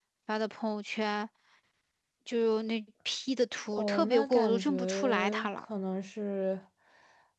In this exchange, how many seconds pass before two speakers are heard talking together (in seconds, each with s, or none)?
3.7 s